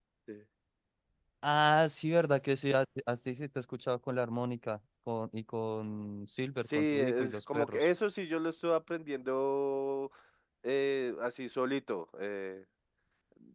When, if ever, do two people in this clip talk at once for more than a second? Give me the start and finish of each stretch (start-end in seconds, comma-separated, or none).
6.7-7.9